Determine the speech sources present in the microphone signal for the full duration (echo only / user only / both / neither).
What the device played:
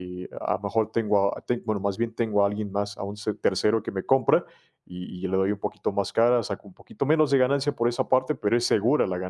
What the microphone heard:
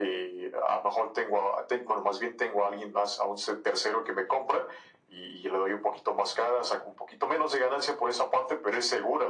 echo only